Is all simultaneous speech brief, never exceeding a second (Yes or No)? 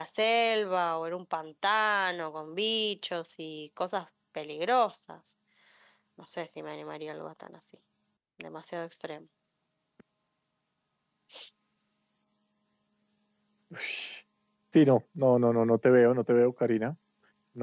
Yes